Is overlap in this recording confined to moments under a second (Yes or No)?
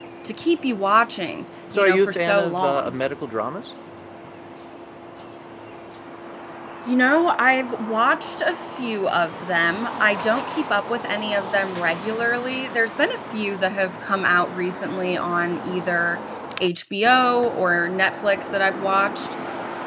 No